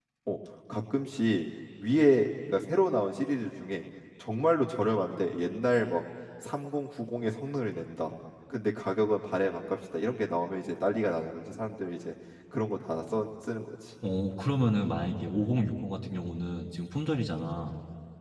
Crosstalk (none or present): none